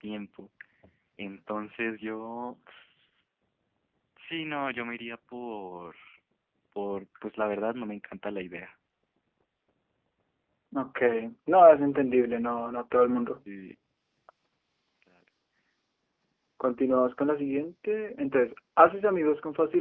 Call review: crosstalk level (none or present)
none